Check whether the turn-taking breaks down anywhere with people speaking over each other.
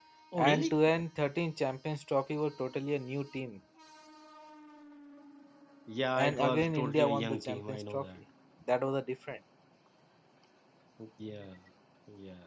Yes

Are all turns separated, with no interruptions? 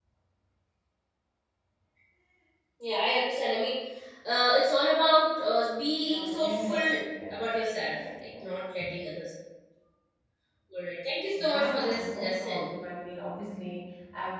No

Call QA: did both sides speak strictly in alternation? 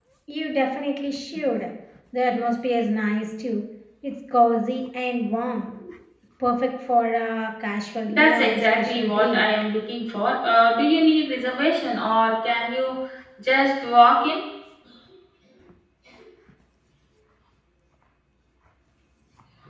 No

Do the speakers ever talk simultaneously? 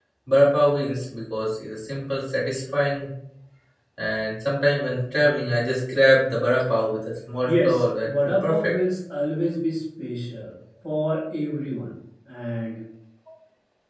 Yes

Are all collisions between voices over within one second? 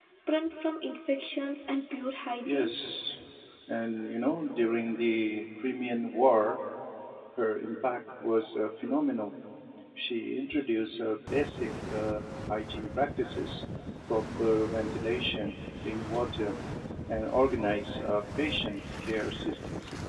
Yes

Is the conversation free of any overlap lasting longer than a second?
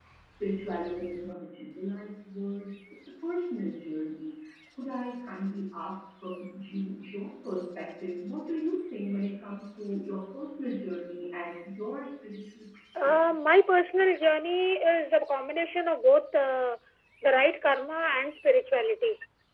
Yes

